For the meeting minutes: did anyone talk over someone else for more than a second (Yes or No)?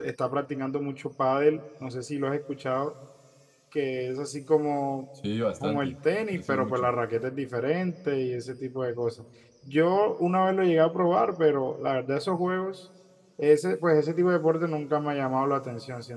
Yes